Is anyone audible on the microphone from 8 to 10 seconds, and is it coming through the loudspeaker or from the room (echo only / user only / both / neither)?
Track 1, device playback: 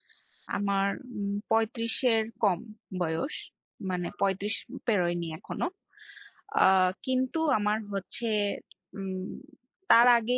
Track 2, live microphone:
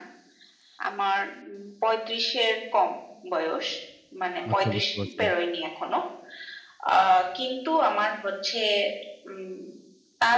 echo only